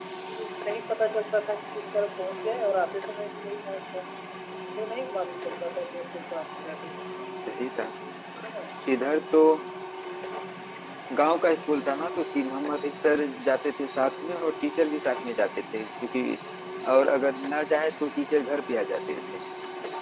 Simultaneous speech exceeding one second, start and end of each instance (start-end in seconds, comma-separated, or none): none